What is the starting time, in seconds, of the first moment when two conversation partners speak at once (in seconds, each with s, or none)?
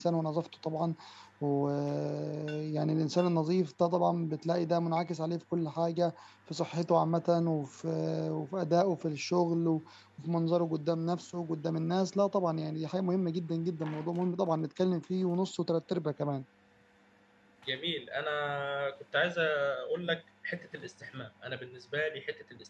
none